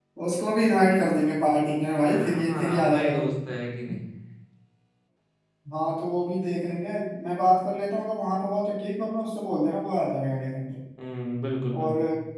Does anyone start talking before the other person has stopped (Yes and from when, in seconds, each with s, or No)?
Yes, from 2.1 s